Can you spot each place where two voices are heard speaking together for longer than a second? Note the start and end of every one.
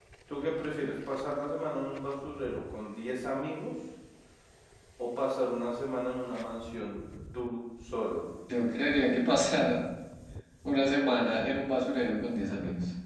none

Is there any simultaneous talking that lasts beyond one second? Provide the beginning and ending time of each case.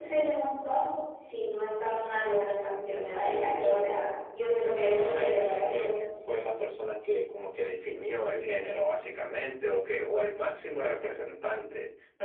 4.6-5.9

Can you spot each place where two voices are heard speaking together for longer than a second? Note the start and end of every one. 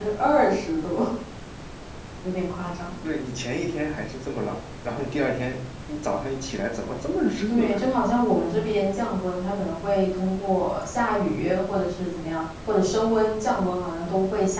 none

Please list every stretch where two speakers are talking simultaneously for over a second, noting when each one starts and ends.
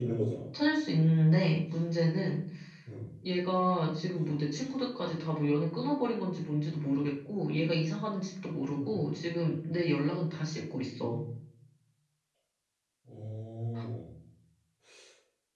none

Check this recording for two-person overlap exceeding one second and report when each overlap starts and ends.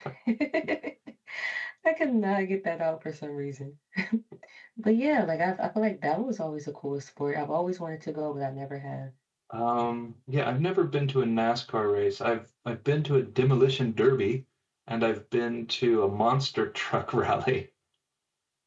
none

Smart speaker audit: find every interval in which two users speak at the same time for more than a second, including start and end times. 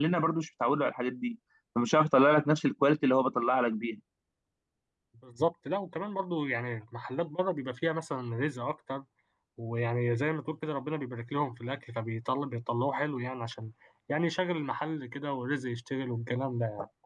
none

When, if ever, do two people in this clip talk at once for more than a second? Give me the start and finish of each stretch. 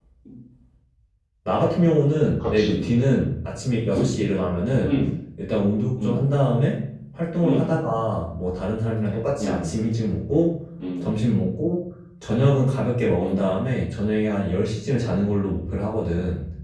none

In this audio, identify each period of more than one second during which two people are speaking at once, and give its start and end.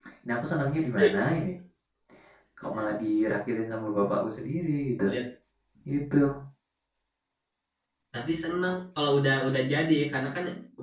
none

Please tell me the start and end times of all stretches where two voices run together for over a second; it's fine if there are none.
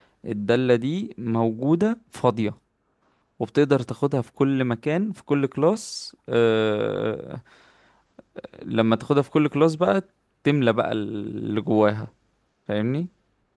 none

